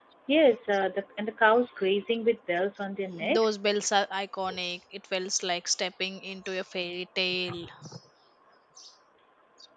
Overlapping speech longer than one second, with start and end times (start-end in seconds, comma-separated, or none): none